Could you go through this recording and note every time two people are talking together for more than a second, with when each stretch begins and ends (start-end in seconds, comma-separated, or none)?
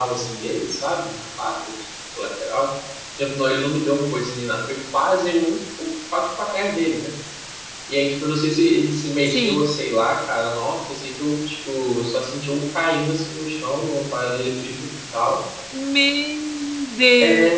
none